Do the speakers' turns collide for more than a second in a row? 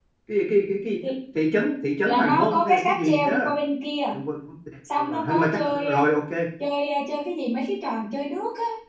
Yes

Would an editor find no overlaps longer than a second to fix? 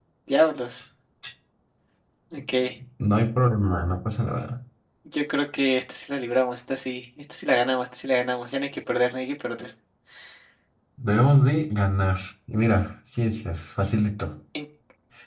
Yes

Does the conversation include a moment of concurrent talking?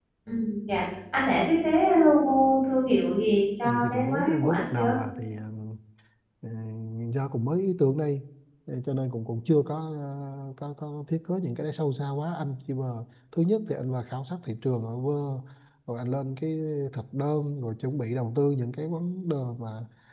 Yes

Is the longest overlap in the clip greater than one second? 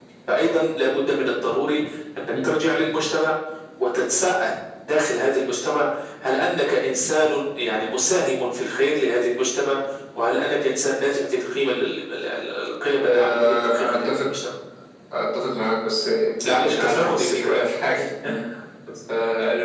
Yes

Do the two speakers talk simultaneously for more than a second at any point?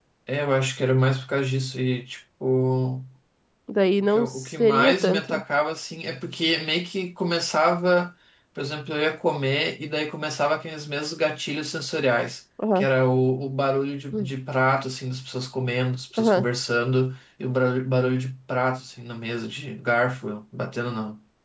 Yes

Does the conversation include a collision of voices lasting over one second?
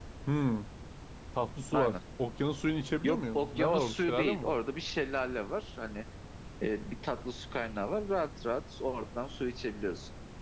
Yes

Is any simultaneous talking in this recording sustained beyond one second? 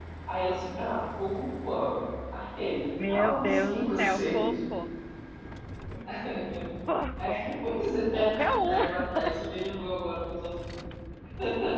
Yes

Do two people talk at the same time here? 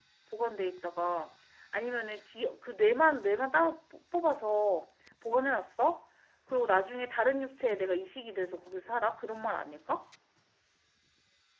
No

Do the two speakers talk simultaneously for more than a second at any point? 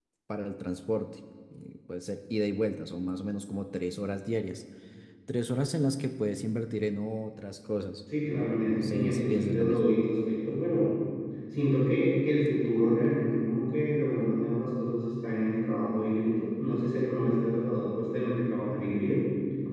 Yes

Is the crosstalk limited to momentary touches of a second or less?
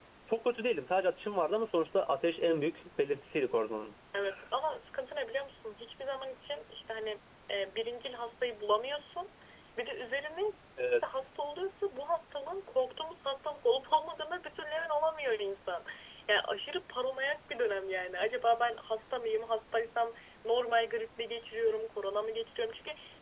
Yes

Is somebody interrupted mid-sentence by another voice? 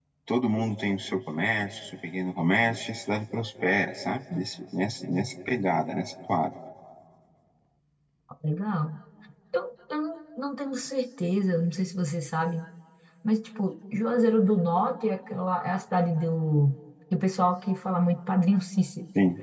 No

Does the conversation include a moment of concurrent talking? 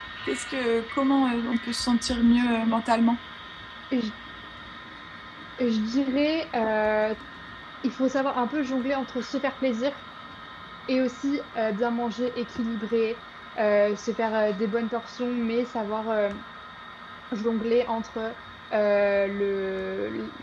No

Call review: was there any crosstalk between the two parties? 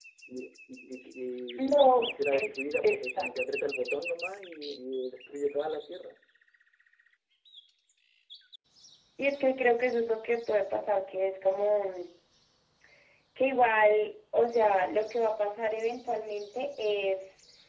Yes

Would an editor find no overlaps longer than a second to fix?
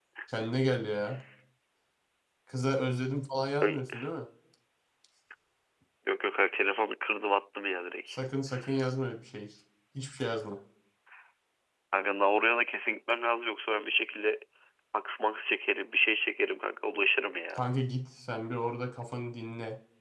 Yes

